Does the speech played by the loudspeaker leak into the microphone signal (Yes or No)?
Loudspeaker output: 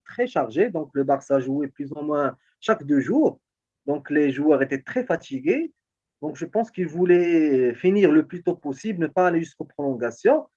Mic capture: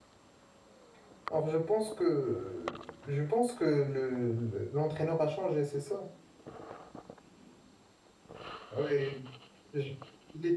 No